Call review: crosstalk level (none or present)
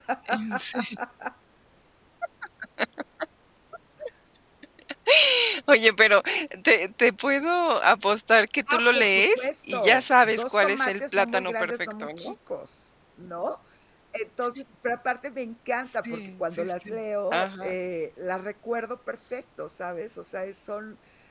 present